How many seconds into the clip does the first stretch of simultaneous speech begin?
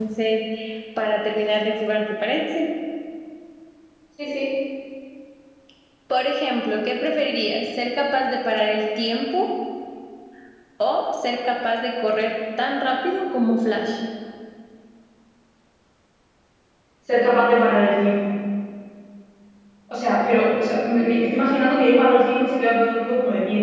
none

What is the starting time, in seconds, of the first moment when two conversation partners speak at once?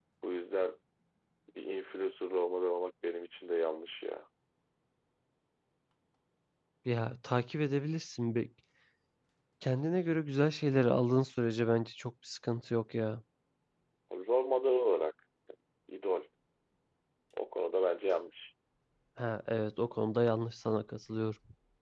none

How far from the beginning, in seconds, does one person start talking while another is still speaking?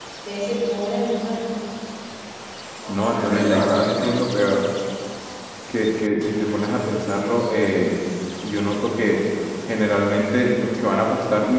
2.9 s

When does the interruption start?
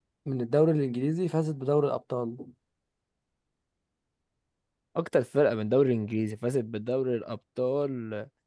none

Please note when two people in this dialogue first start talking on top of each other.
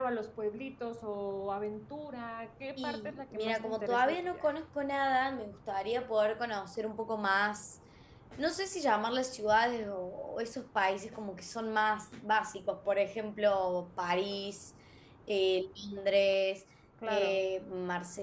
2.8 s

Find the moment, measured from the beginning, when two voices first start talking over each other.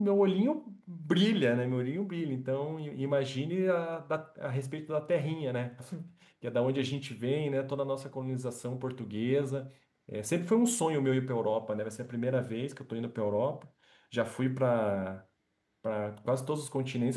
none

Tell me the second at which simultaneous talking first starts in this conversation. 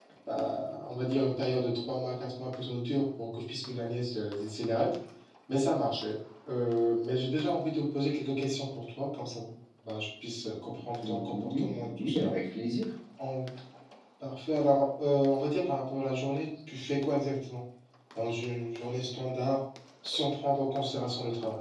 11.0 s

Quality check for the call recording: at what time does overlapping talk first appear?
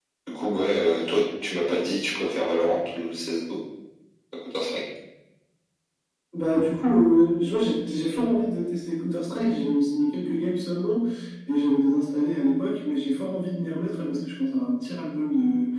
none

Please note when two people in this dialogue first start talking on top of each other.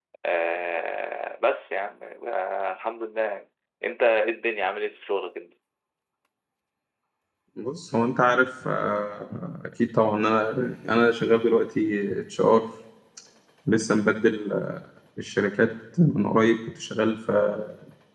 none

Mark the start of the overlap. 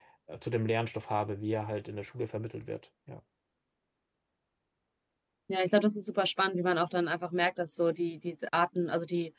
none

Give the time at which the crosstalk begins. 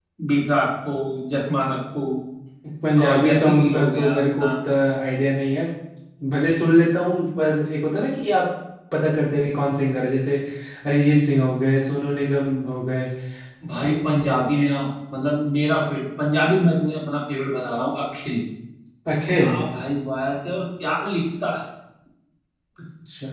3.1 s

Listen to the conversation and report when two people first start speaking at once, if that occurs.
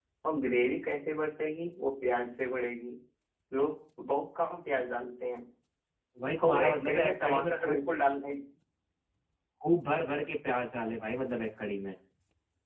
6.4 s

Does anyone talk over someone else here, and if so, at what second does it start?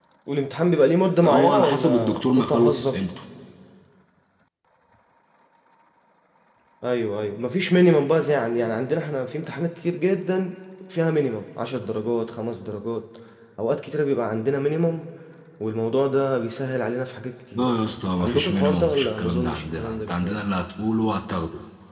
1.2 s

